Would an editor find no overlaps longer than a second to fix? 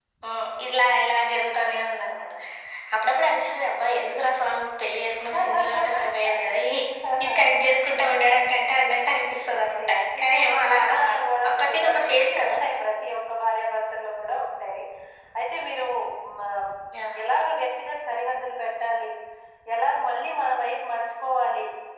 No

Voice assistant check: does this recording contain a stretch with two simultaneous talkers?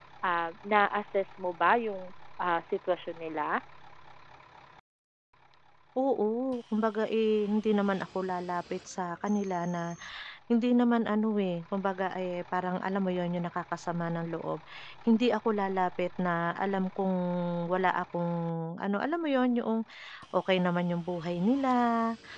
No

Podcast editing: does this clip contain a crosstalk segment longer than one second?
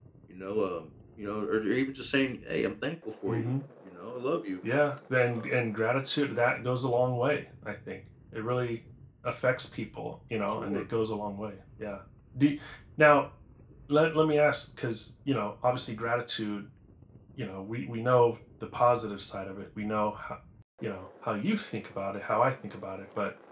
No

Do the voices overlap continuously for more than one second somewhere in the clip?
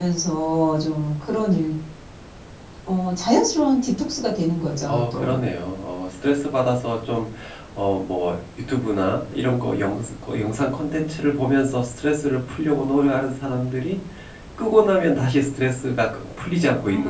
No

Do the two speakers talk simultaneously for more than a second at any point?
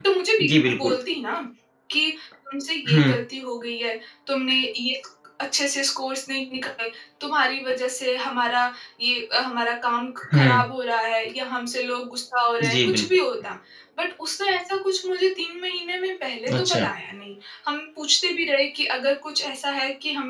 No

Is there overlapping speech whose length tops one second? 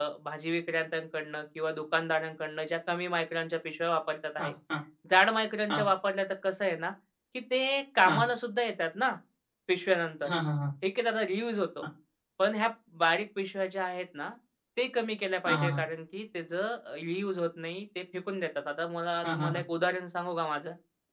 No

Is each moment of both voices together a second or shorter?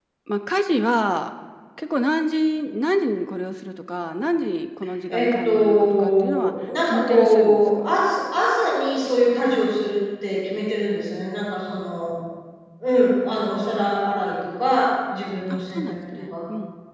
No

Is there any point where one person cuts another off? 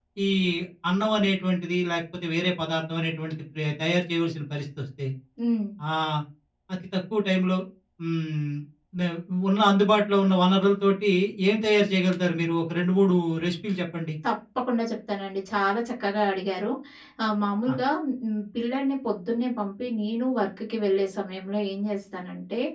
No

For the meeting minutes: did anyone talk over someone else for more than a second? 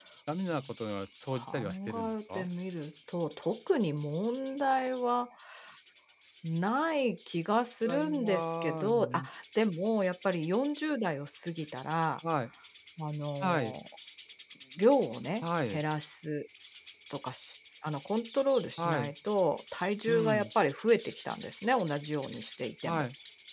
Yes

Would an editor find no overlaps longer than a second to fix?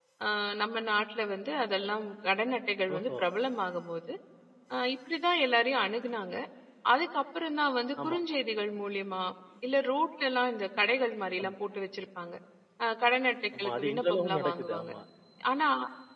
No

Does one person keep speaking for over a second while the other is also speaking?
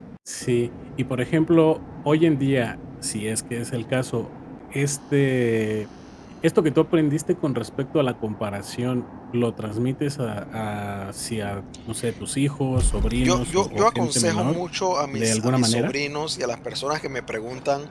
Yes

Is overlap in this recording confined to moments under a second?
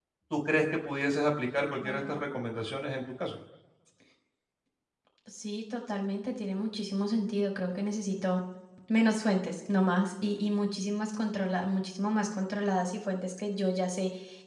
Yes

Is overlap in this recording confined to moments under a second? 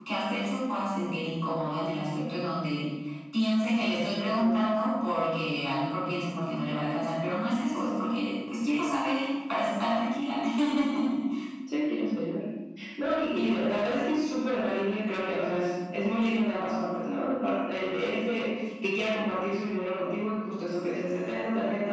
Yes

